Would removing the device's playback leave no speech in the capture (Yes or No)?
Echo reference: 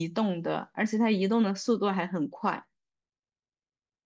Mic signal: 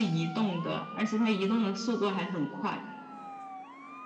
Yes